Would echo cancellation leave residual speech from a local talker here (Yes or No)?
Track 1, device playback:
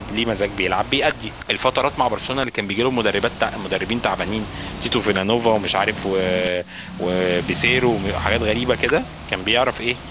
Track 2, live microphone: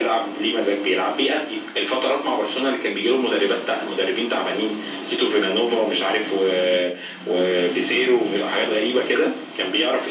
No